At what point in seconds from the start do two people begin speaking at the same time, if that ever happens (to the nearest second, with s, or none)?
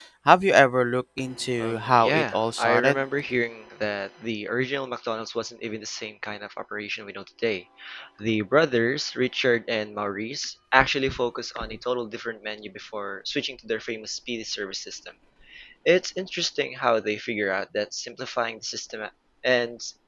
2 s